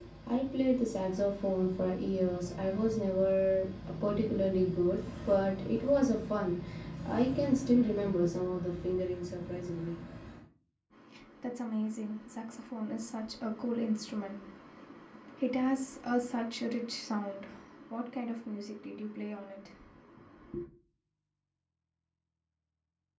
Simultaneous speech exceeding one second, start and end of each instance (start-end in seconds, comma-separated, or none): none